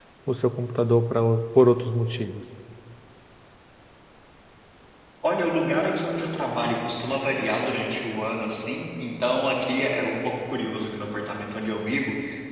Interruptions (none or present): none